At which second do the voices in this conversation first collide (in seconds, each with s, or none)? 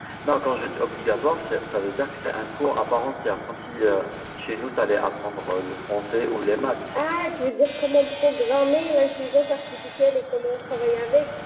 none